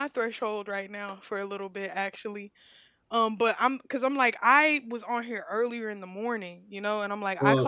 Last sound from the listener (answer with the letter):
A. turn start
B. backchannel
B